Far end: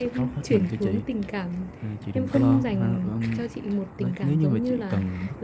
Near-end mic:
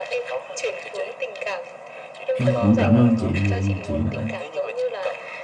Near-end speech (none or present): present